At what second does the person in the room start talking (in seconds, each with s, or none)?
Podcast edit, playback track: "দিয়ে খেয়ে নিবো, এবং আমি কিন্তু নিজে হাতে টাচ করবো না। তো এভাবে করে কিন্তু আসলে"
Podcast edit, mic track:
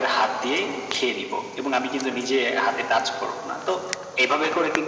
none